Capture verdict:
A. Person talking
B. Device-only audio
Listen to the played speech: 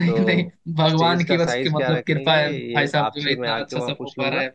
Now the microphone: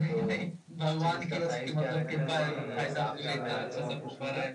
A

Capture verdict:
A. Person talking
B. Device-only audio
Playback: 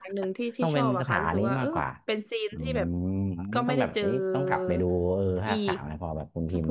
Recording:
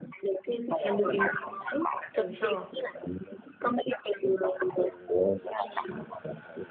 A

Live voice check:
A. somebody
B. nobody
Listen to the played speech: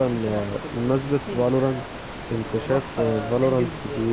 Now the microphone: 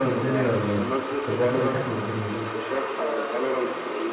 A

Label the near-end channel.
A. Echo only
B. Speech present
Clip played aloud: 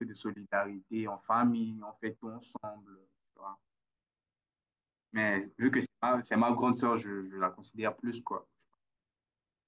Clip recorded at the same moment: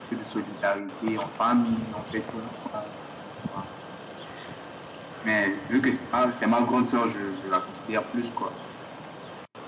A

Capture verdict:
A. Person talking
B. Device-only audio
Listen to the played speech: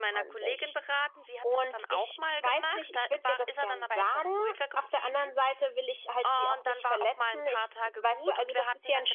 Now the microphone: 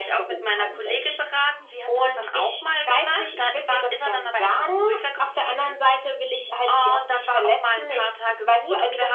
B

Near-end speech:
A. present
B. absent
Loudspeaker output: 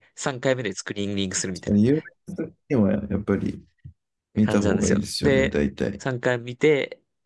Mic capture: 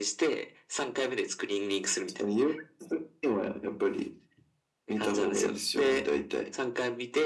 B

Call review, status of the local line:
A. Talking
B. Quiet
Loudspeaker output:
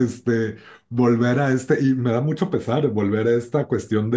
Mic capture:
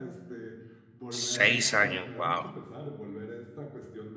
A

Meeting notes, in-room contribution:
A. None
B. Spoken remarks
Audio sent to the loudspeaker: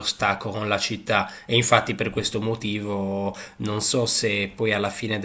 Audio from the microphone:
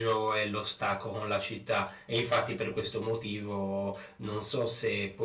A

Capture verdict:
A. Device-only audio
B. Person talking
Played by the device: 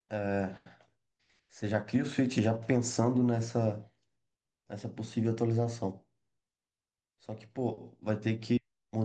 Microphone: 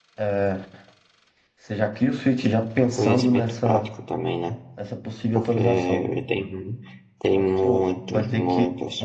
B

